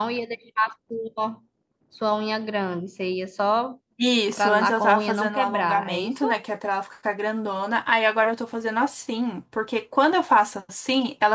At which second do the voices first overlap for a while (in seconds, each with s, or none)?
4.4 s